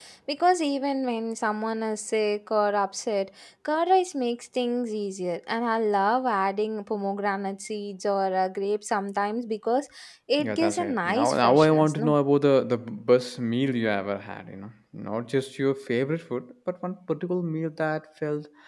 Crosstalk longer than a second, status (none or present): present